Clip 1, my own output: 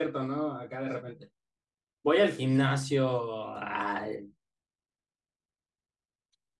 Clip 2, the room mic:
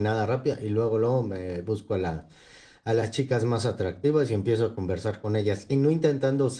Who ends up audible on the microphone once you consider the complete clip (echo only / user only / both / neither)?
user only